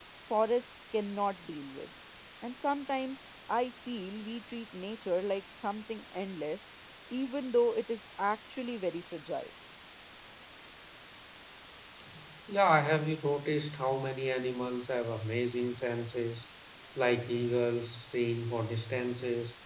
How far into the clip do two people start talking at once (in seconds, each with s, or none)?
none